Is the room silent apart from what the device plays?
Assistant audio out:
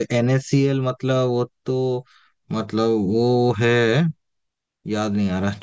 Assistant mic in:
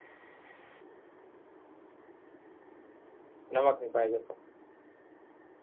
No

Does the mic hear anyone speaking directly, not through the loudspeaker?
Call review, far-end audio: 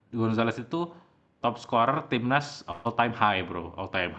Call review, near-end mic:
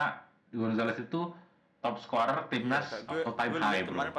Yes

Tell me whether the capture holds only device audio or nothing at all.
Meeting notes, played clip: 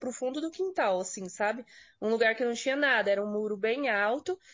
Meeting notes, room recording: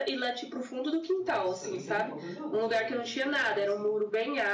No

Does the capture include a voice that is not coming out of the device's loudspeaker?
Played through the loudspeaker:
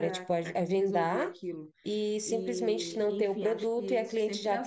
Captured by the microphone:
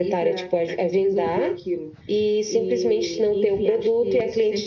No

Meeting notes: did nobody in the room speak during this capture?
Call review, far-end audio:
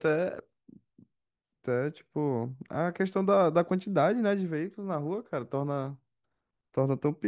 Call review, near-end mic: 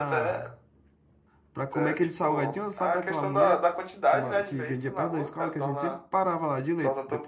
No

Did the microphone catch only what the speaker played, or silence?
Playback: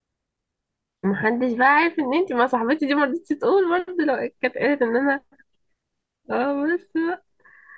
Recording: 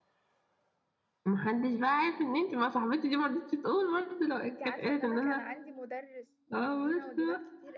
No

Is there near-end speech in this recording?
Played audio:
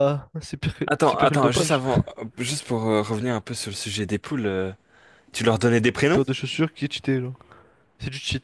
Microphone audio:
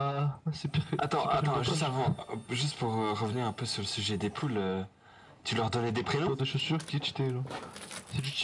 No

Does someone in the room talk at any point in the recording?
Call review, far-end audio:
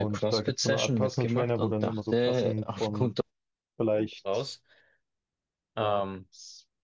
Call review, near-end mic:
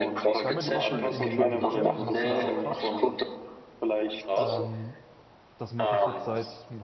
Yes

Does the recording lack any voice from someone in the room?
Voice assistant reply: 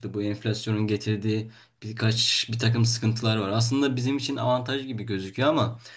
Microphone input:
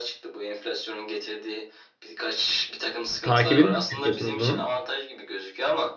No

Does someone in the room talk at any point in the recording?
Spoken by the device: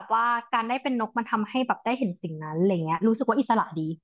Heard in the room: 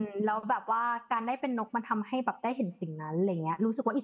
No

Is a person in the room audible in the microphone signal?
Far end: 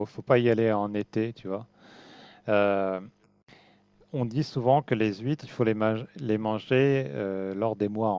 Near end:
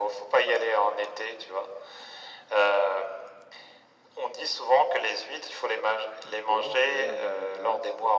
Yes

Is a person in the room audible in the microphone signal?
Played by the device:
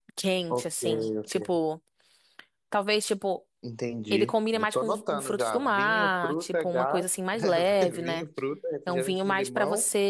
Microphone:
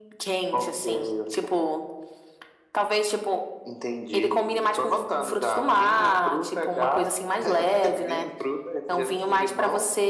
No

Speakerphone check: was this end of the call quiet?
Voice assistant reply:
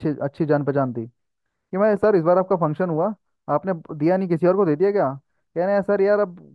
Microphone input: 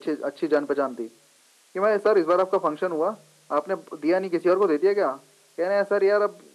Yes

